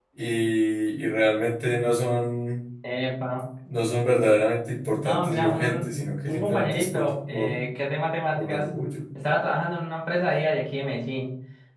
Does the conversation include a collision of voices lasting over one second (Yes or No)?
Yes